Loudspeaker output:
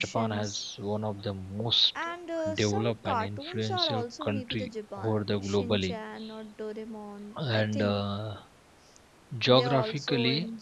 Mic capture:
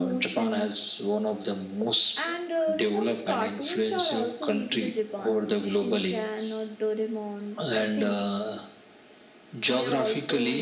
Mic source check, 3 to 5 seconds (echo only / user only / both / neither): echo only